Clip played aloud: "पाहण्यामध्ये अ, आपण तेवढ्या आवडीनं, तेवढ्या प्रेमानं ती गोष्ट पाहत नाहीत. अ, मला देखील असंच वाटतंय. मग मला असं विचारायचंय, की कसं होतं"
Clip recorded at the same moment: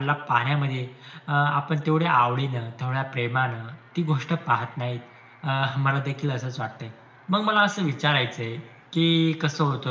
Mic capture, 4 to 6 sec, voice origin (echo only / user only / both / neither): echo only